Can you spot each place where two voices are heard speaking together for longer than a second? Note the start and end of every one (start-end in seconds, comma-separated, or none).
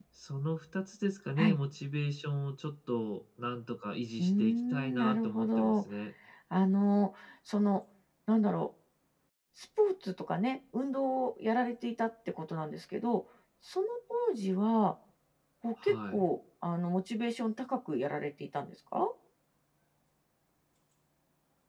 4.2-5.8